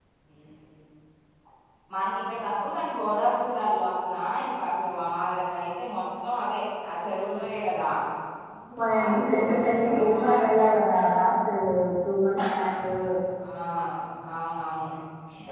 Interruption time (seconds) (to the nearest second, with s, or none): 9 s